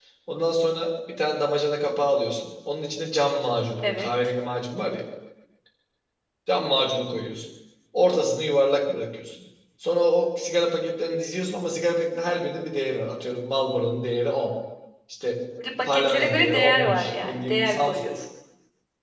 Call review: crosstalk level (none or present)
present